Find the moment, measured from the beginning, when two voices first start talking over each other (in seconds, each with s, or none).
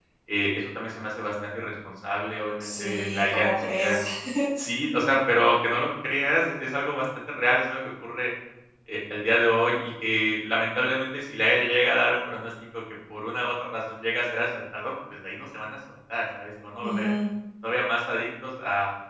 2.6 s